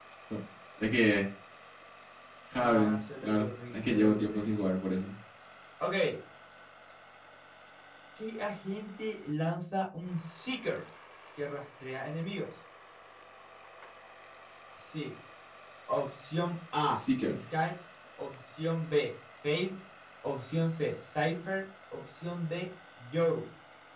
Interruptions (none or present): present